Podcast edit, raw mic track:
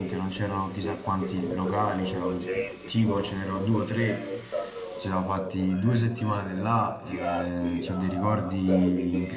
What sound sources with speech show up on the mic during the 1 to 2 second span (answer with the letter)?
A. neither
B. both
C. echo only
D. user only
B